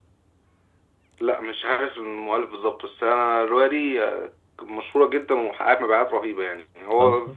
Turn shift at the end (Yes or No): No